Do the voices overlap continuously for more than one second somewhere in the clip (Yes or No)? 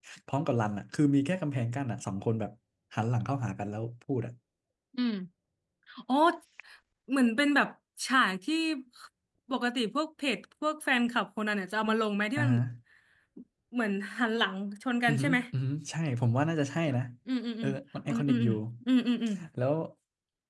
No